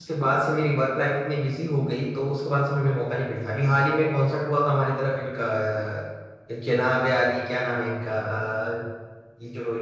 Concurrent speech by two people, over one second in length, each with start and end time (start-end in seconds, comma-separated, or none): none